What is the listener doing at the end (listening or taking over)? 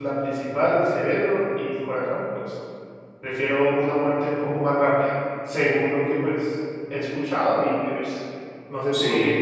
taking over